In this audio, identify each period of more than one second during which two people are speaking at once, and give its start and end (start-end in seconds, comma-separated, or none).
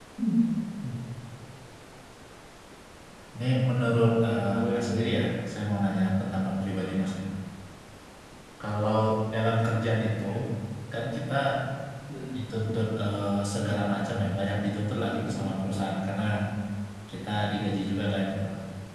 4.1-5.3